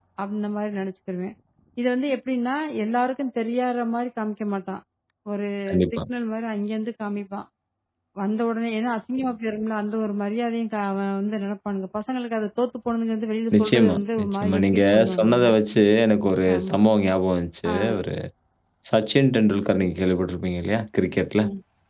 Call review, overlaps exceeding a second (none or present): present